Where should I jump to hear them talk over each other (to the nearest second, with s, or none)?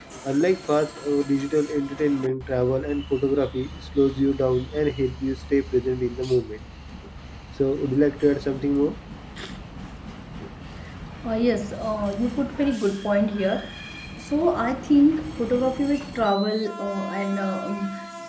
none